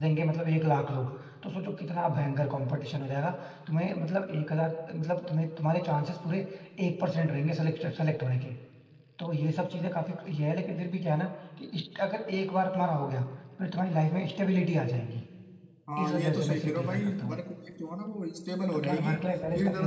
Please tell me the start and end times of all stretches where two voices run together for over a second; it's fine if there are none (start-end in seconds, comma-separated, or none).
16.0-17.4